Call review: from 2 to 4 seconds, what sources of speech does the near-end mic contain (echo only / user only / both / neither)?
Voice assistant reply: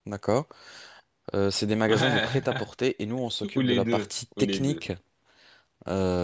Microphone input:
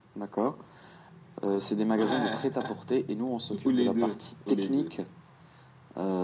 echo only